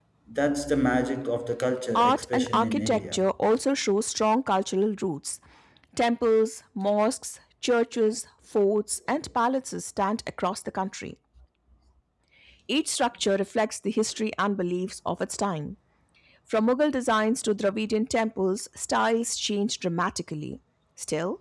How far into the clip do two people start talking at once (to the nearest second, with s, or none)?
2 s